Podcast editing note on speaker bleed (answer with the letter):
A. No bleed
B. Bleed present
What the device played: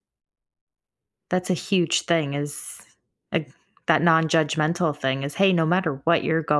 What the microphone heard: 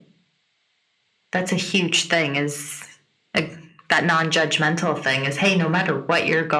B